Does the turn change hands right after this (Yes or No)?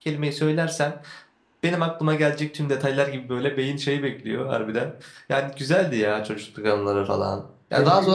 No